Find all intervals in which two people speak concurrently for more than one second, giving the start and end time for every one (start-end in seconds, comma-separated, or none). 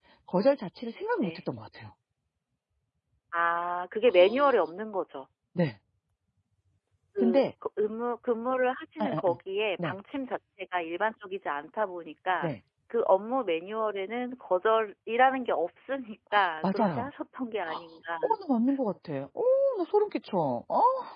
none